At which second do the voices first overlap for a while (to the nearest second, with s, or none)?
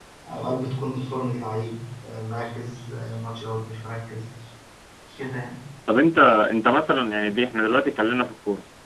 none